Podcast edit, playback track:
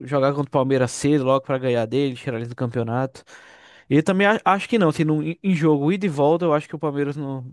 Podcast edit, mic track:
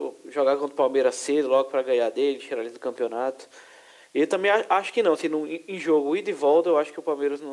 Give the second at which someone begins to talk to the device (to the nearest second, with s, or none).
none